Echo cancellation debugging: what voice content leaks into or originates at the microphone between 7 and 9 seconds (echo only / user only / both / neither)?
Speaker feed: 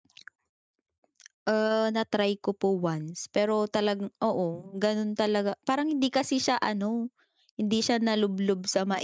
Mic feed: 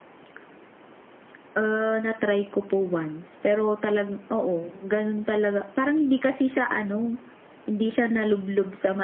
echo only